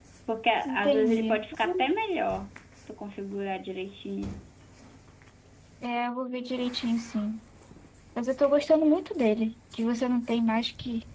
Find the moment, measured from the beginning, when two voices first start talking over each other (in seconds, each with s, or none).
0.7 s